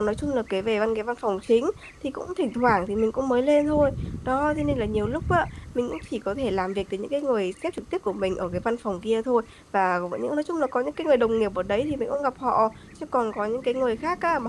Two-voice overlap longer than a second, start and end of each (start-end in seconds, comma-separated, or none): none